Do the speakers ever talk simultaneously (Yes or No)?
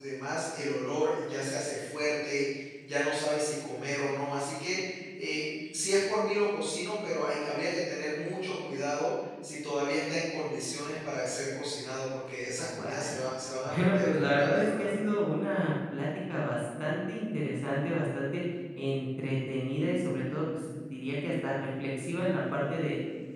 Yes